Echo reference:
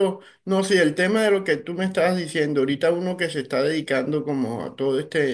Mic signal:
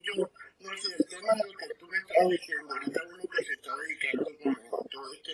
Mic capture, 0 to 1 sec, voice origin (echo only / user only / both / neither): echo only